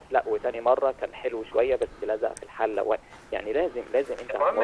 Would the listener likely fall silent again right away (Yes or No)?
No